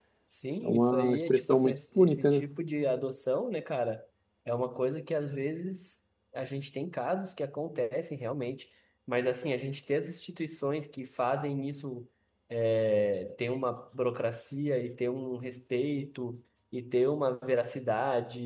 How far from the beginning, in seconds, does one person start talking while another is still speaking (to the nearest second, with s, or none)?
1 s